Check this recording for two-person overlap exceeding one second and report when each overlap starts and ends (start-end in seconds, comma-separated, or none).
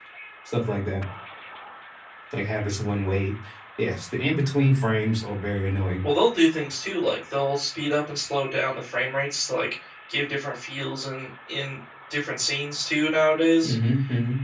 none